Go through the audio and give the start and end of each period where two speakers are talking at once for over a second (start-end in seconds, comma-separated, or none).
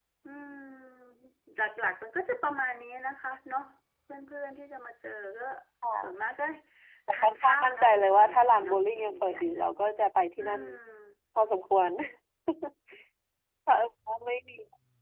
7.1-9.9